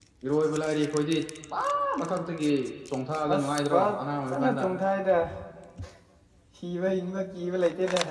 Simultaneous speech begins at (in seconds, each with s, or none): 3.3 s